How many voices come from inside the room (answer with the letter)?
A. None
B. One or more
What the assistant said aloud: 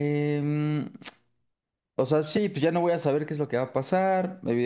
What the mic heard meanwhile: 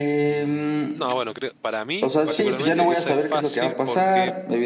B